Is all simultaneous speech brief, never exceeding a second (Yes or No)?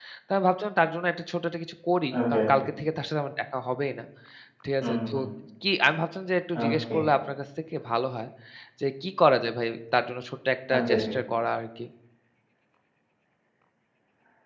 Yes